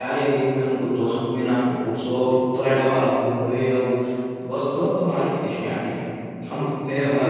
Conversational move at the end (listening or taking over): taking over